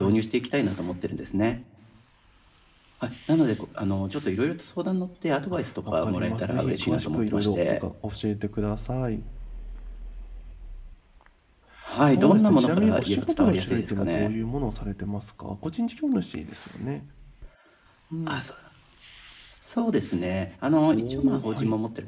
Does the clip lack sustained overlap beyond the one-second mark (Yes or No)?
No